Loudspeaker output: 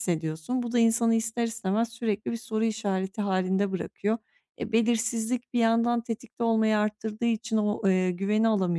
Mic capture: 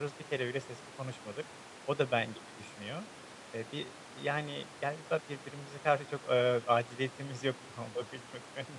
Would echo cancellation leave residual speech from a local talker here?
Yes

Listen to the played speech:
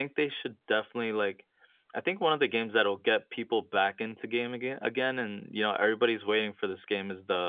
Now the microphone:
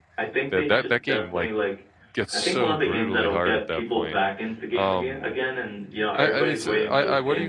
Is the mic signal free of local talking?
No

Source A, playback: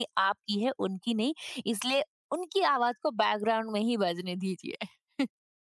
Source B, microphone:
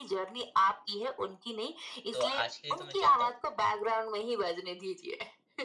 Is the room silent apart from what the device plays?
No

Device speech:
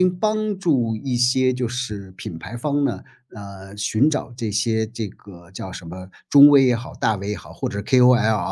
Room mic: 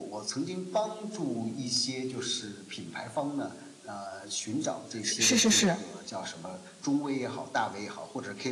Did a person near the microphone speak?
Yes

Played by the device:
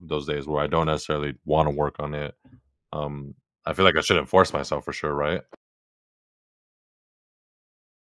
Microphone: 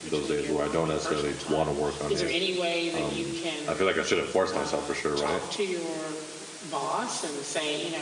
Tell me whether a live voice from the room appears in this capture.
Yes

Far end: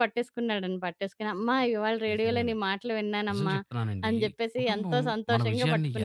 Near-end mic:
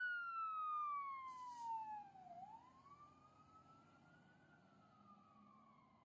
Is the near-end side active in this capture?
No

